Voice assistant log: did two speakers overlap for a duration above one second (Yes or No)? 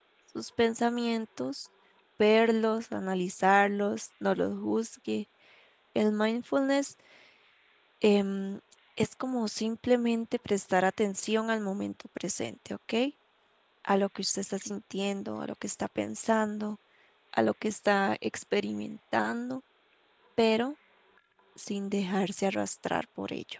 No